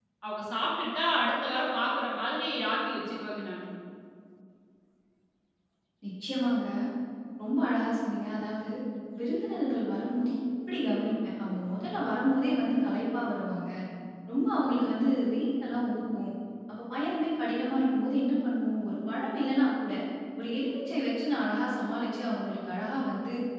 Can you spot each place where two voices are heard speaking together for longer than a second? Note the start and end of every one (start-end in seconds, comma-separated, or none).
none